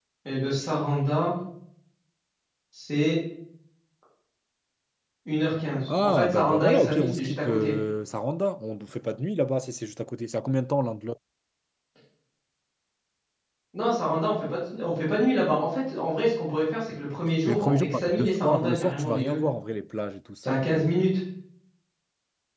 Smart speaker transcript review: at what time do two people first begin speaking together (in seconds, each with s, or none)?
5.9 s